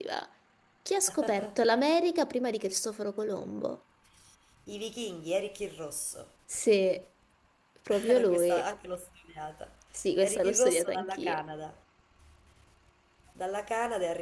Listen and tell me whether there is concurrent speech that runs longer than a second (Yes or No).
Yes